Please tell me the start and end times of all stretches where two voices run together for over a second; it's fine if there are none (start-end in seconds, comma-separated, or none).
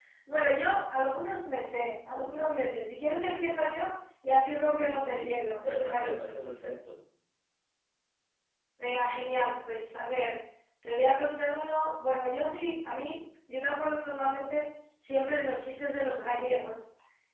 4.8-6.3